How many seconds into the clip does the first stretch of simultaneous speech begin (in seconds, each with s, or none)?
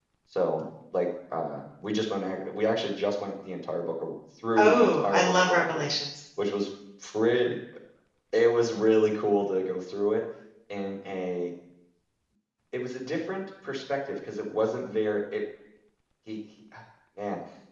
4.5 s